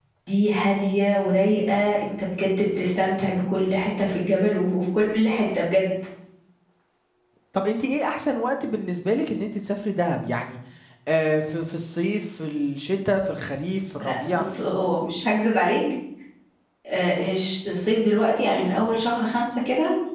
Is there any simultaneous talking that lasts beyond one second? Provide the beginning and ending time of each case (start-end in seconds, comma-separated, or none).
none